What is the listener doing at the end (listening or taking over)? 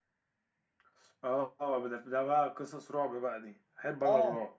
taking over